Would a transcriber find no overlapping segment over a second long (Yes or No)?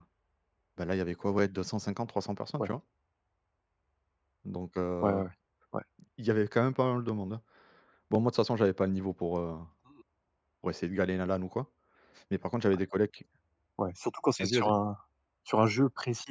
Yes